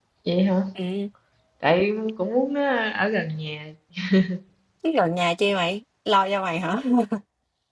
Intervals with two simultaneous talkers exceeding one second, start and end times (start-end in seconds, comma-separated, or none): none